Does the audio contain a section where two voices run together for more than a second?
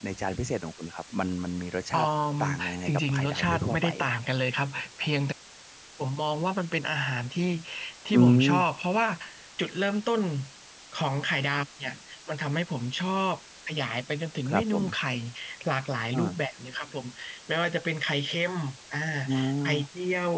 Yes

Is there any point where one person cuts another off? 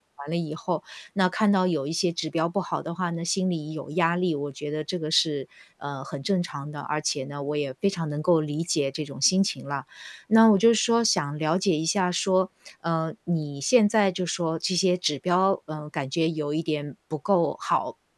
No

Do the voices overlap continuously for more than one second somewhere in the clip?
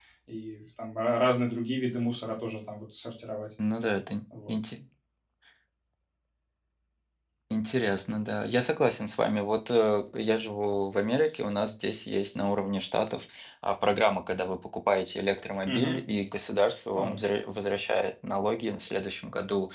No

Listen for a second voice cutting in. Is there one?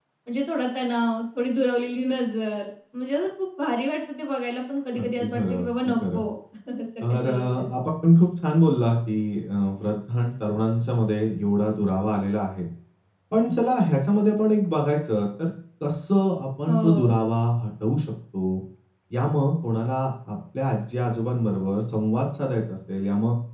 Yes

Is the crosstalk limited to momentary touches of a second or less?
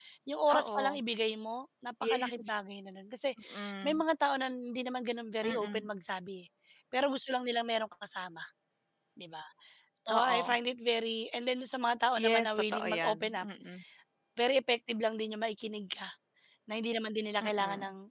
No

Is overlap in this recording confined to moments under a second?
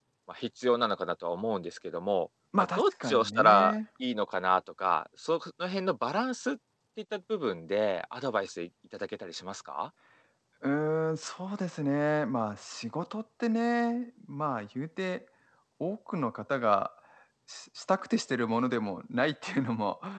No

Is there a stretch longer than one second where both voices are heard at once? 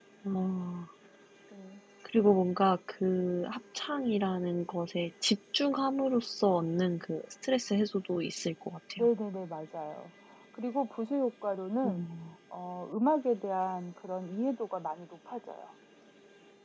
No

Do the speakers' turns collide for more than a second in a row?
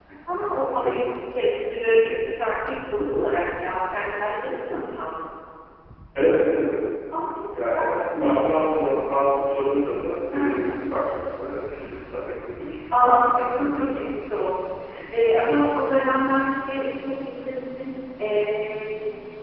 Yes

